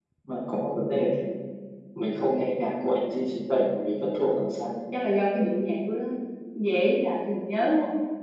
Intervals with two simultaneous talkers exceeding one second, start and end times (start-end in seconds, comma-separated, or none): none